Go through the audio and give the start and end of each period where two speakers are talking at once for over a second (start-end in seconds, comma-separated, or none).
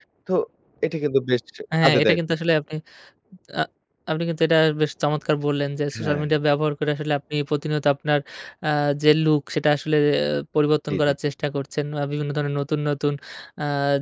none